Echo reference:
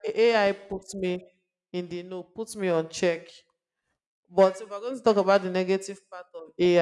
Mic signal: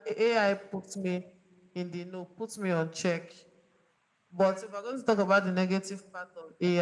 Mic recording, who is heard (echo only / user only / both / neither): echo only